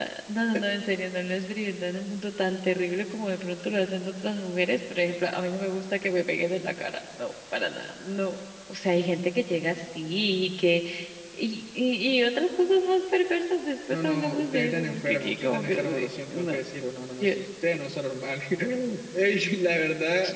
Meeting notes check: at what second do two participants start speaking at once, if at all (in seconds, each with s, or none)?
13.9 s